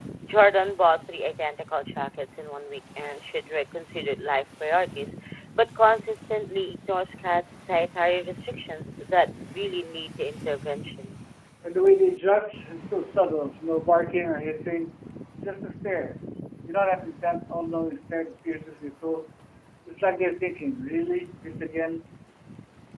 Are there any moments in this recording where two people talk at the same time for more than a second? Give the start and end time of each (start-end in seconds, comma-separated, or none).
none